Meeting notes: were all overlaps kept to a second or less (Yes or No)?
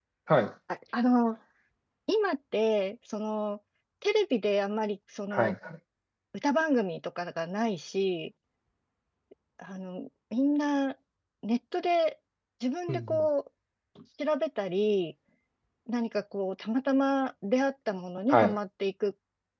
Yes